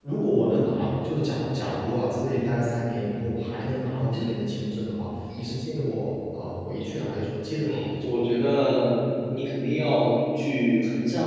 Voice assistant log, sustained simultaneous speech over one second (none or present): none